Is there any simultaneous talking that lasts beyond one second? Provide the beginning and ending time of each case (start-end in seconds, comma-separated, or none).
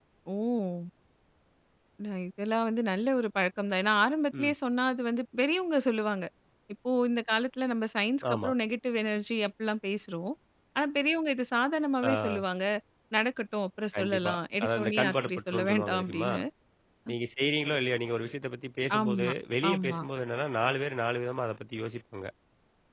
13.9-16.3